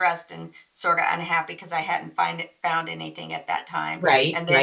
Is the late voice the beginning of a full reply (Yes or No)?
No